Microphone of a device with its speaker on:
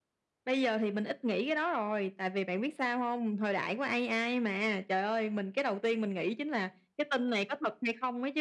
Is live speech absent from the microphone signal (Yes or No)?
Yes